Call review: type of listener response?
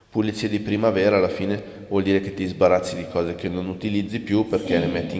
listening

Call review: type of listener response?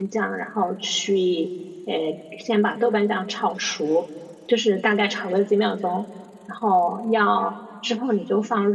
listening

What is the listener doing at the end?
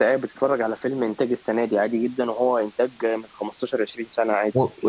taking over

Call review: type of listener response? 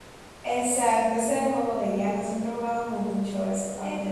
taking over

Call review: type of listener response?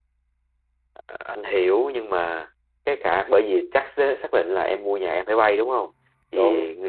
listening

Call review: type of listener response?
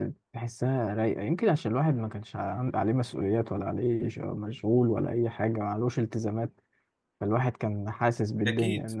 listening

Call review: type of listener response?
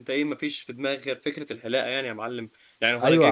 taking over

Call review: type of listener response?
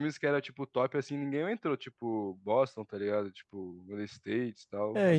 taking over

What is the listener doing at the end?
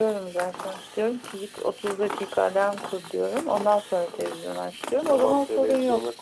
taking over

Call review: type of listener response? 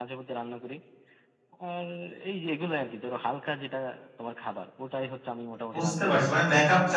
taking over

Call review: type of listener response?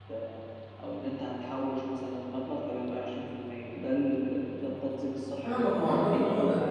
taking over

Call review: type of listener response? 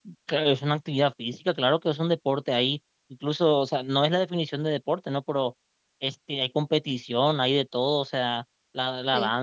listening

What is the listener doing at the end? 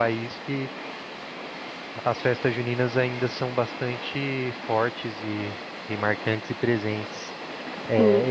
taking over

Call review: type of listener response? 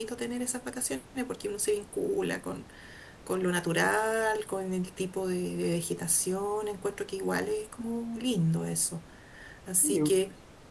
listening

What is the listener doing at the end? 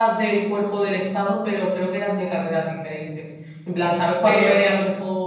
listening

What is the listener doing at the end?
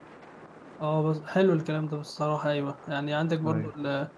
listening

